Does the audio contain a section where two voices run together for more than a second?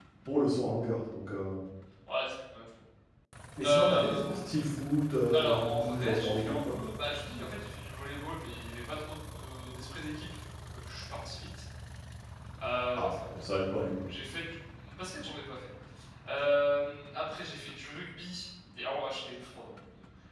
Yes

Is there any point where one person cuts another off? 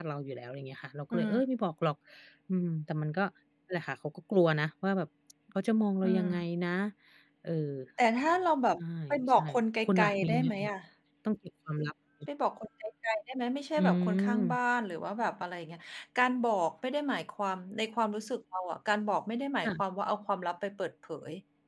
Yes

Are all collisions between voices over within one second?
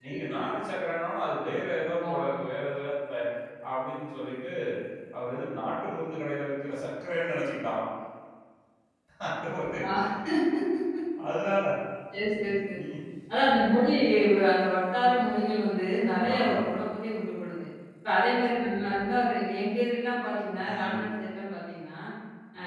Yes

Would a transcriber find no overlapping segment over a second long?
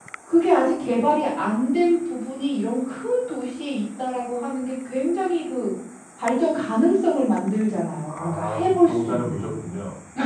No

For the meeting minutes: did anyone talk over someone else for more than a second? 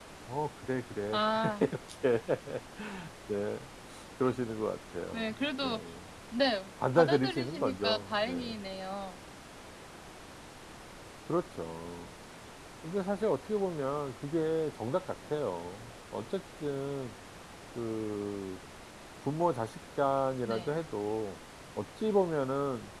Yes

